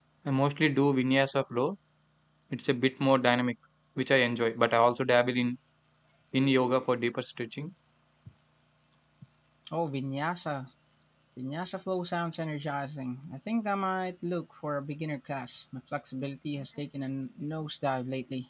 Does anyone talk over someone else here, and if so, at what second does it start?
none

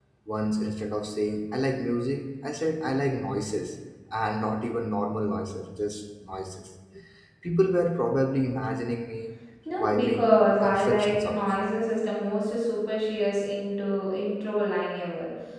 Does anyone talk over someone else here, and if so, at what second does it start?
9.8 s

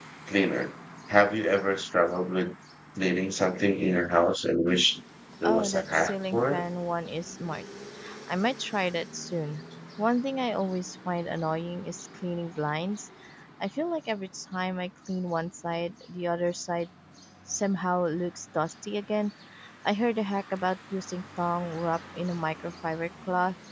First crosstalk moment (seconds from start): 5.4 s

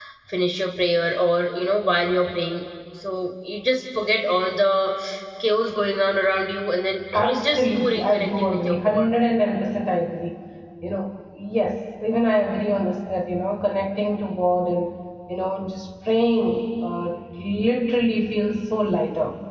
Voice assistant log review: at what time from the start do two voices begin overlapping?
7.1 s

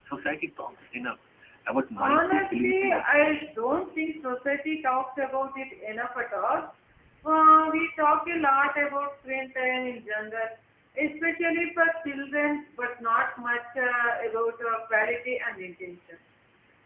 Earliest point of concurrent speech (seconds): 2.0 s

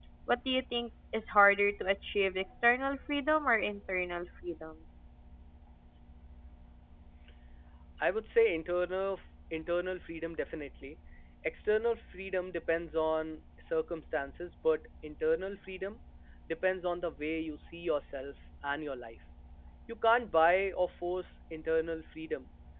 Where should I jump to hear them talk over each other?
none

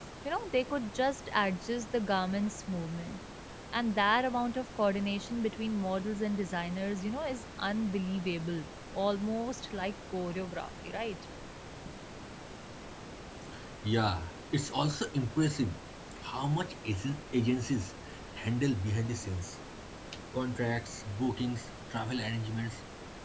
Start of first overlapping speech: none

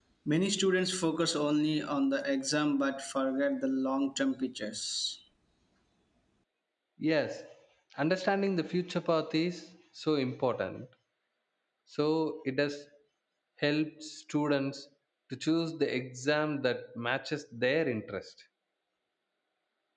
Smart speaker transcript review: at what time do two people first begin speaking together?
none

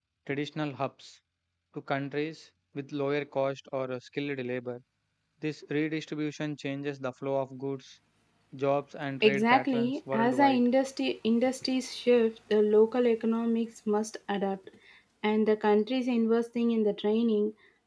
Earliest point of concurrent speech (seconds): 9.2 s

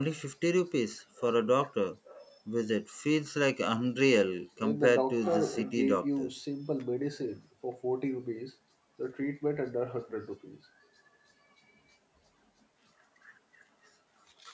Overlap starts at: 4.6 s

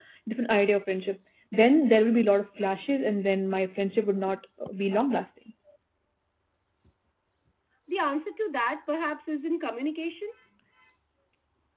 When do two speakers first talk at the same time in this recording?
none

